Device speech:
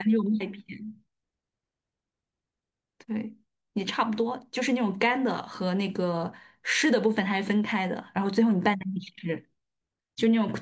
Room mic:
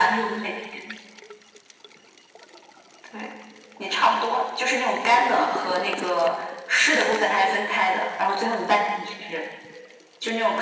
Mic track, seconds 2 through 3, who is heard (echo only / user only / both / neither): neither